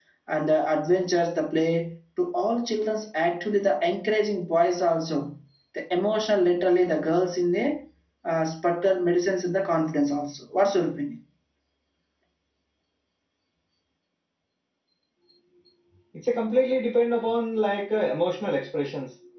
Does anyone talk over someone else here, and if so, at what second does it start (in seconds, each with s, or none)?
none